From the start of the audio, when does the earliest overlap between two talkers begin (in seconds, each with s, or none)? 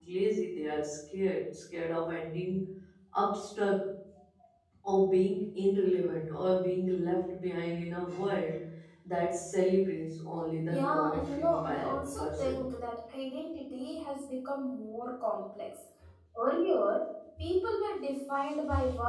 10.7 s